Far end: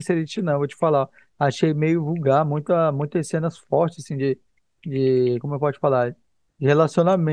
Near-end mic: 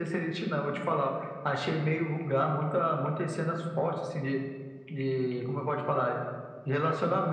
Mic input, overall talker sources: echo only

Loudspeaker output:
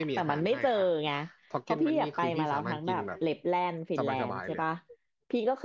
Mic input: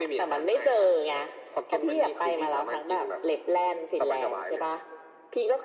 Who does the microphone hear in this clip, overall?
echo only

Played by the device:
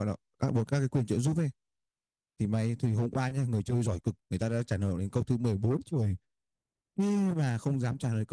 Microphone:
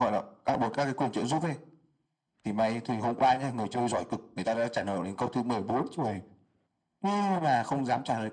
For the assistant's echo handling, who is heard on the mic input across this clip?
echo only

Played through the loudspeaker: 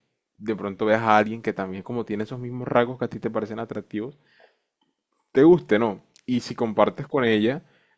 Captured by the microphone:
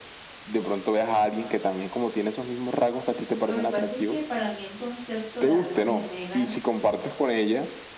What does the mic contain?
both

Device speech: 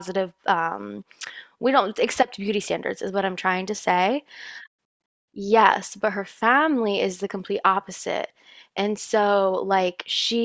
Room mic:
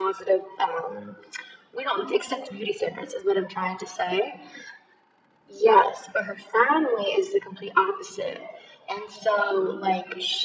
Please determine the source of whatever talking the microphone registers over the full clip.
echo only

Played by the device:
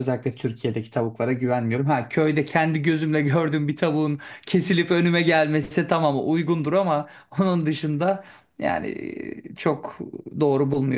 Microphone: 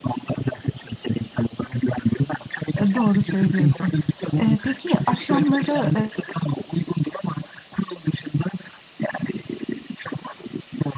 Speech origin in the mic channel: both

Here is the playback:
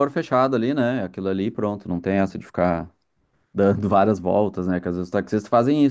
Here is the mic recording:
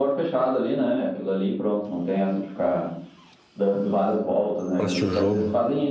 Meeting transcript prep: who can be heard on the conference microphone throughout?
both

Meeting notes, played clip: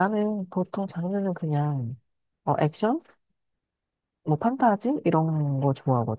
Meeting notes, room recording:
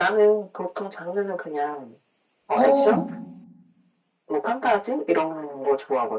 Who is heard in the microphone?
both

